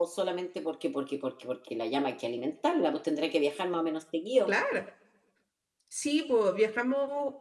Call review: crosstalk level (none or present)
none